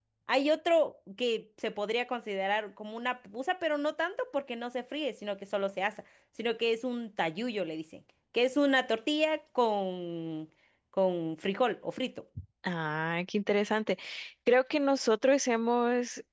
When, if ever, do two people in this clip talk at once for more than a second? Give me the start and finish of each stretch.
none

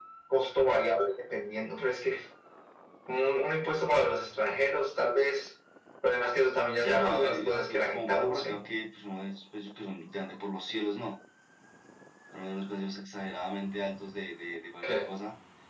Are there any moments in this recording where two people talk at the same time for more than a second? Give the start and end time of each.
6.8-8.6

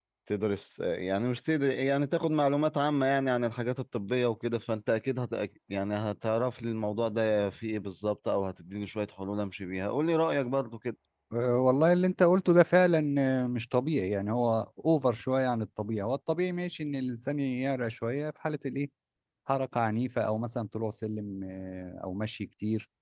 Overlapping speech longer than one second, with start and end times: none

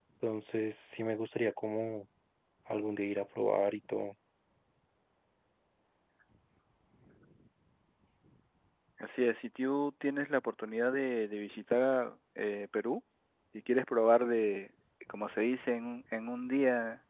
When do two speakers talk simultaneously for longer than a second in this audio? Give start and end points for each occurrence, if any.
none

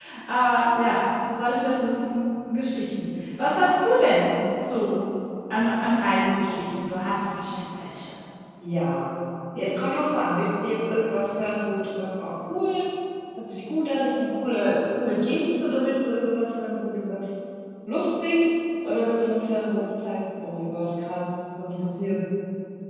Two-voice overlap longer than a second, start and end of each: none

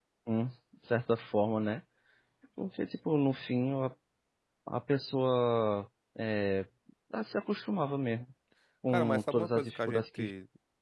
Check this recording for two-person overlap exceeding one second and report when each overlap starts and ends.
8.9-10.3

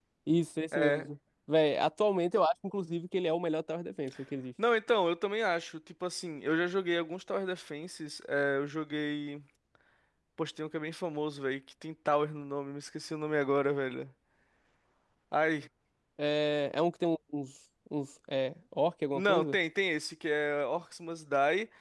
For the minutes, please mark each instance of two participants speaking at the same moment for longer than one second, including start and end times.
none

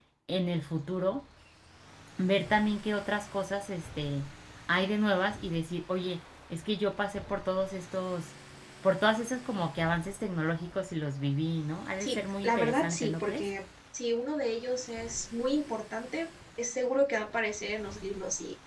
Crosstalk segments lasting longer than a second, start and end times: 12.0-13.5

